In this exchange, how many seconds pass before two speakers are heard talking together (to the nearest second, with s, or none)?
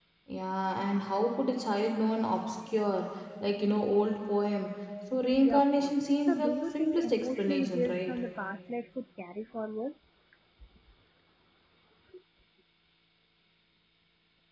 5 s